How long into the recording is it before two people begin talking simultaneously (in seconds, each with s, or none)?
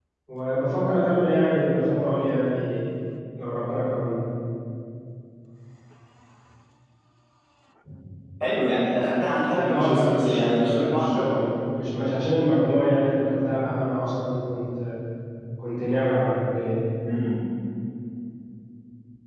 9.5 s